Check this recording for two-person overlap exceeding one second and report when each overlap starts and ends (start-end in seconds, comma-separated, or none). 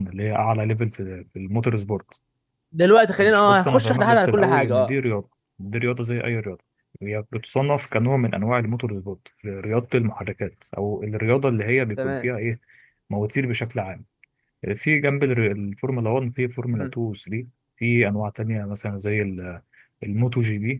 3.2-4.9